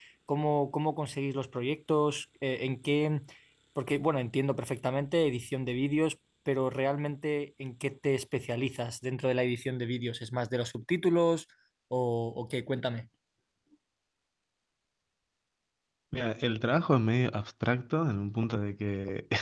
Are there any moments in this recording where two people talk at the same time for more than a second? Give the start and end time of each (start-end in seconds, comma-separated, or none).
none